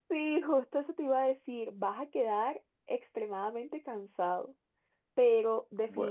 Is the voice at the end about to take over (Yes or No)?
No